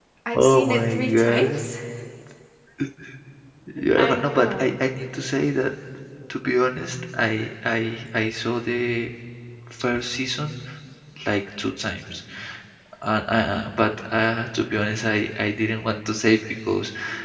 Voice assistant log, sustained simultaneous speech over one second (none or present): present